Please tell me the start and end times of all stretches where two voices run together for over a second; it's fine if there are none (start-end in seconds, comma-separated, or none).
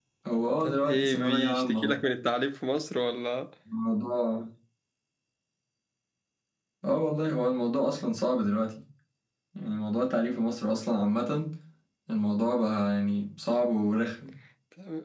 0.6-2.0